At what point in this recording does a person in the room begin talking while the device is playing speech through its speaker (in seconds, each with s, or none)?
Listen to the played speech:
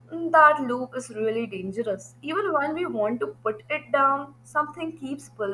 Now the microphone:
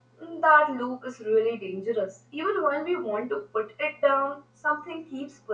none